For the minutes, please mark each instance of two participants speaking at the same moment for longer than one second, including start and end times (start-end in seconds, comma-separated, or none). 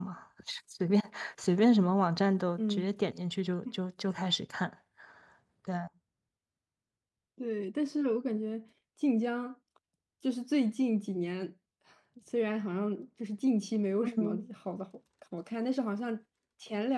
none